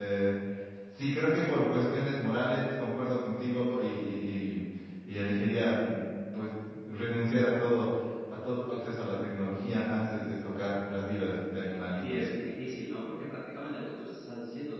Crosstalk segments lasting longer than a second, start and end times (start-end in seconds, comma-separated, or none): none